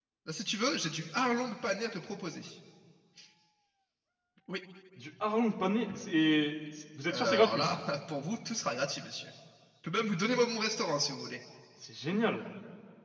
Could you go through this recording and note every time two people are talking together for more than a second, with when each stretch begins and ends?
none

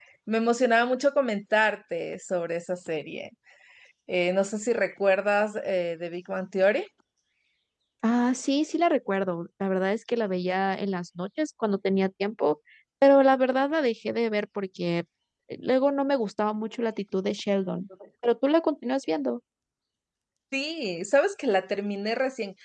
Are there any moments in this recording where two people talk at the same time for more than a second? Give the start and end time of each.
none

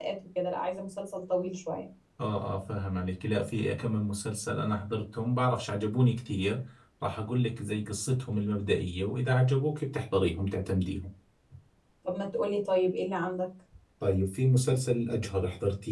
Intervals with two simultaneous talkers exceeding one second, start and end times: none

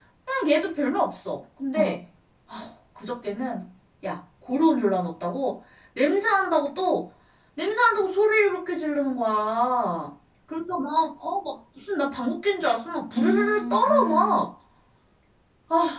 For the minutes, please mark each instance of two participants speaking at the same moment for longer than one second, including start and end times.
13.1-14.4

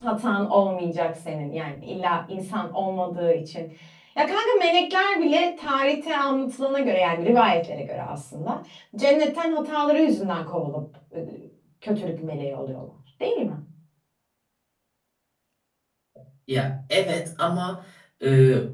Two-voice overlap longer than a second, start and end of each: none

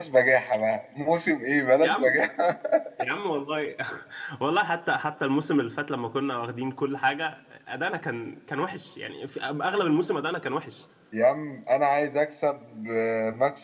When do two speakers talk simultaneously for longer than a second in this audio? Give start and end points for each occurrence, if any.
none

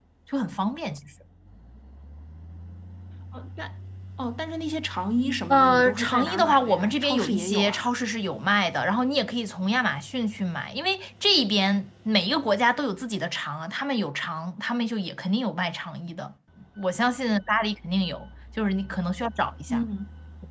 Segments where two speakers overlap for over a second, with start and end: 5.5-7.9

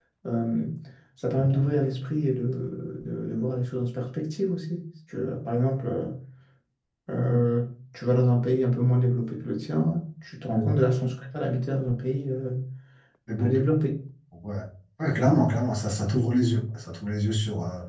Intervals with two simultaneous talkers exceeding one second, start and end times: none

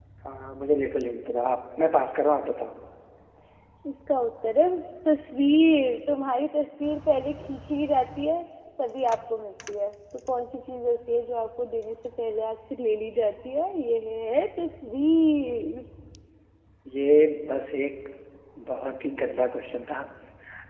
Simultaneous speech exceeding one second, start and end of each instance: none

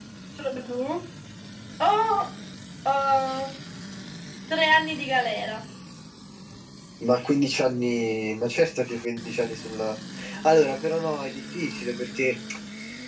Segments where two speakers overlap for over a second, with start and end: none

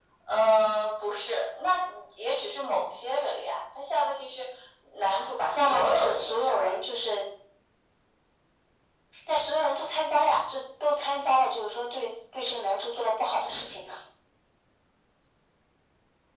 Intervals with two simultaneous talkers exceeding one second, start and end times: 5.5-6.7

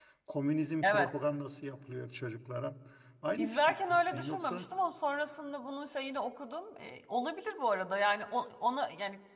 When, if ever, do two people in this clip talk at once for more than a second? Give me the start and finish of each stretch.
3.4-4.7

